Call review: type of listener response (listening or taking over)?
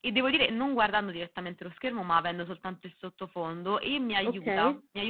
listening